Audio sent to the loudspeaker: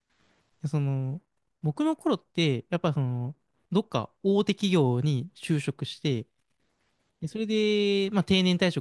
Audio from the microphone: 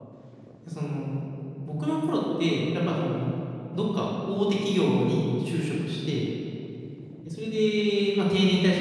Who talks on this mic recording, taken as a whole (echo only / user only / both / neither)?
echo only